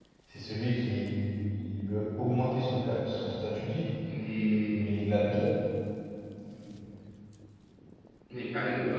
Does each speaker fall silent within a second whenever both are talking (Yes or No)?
Yes